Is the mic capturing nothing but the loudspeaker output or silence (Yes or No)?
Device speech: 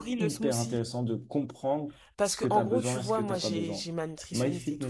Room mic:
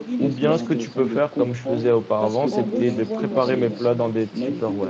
No